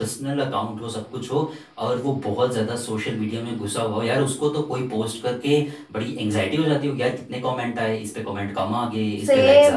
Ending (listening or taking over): taking over